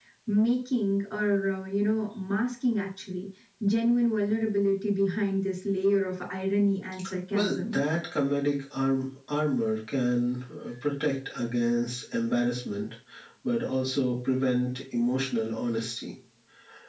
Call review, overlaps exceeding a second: none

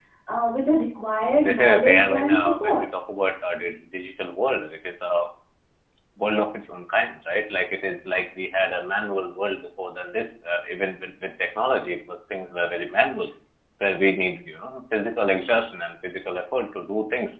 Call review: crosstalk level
present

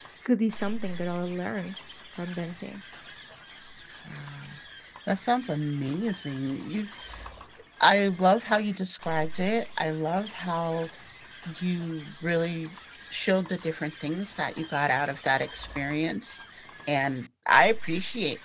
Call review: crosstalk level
none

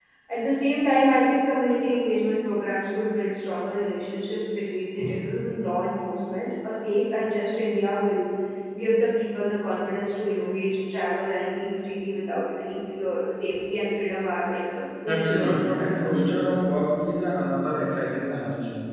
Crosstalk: present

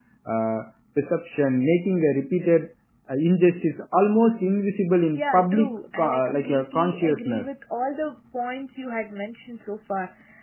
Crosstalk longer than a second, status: present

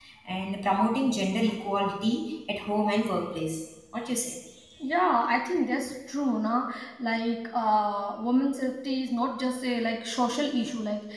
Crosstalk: none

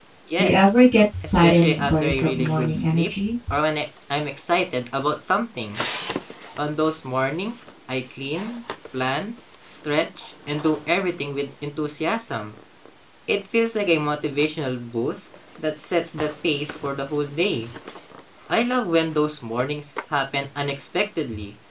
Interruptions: present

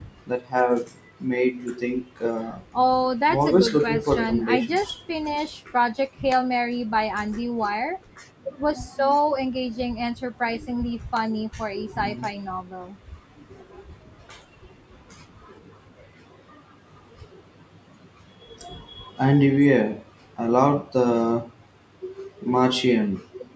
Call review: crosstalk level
present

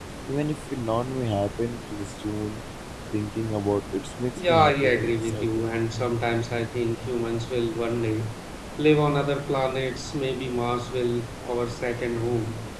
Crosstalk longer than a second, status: present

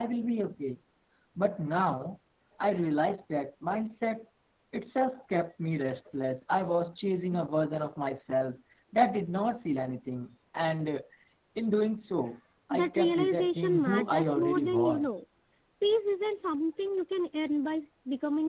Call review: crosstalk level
present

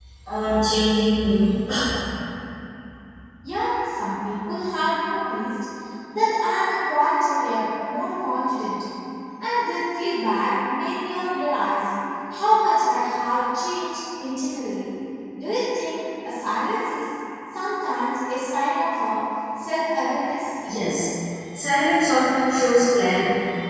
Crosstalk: none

